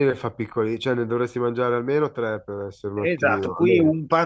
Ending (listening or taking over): taking over